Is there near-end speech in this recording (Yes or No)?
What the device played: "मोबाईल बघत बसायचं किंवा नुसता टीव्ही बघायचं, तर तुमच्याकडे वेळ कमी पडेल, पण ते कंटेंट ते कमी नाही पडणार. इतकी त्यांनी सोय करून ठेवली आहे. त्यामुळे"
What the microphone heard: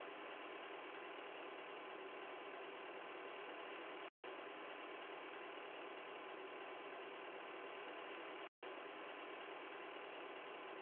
No